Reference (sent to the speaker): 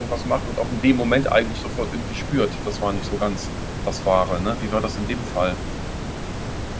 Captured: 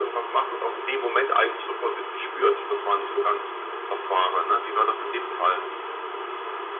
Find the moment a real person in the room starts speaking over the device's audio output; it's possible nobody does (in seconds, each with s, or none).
none